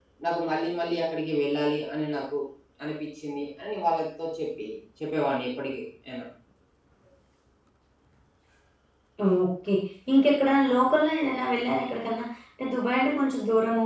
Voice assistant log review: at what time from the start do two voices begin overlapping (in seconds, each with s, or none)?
none